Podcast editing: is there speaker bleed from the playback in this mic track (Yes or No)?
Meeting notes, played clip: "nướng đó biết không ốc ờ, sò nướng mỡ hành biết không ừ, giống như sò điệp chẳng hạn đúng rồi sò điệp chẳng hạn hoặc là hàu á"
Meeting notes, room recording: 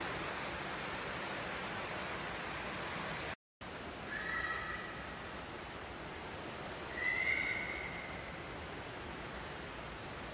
No